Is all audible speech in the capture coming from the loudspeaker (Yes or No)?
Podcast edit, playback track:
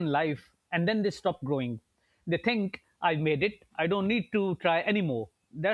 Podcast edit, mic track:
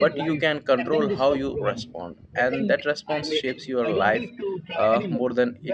No